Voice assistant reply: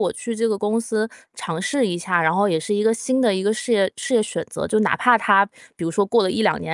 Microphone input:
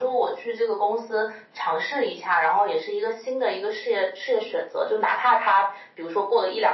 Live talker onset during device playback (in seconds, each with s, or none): none